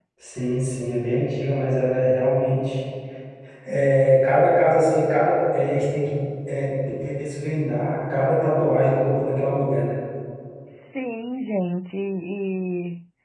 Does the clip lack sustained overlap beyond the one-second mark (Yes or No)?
Yes